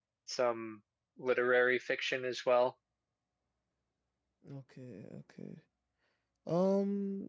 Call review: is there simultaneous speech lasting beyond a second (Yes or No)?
No